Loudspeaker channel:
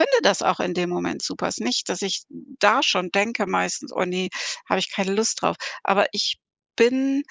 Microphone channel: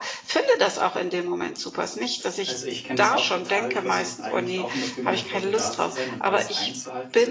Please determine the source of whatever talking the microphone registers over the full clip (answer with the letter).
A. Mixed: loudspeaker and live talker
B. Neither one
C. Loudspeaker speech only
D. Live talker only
A